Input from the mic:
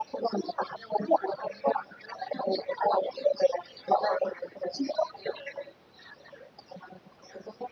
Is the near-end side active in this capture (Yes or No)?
No